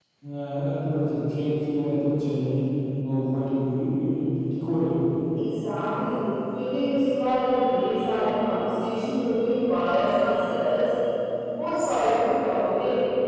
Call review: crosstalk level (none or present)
none